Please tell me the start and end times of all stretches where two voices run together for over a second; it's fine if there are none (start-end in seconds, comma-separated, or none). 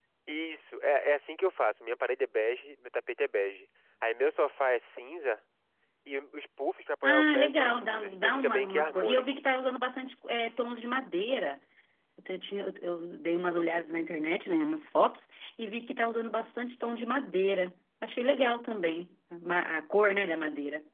7.0-9.2